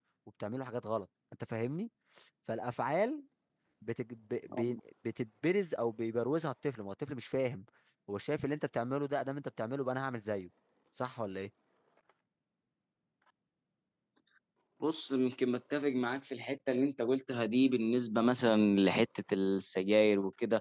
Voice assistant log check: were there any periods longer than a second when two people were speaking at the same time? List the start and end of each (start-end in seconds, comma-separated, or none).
none